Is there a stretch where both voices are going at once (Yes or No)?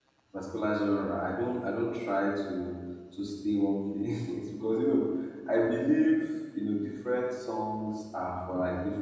No